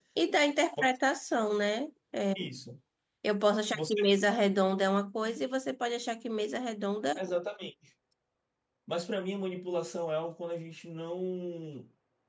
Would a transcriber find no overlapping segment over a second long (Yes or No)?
Yes